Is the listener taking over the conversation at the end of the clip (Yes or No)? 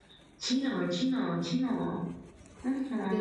Yes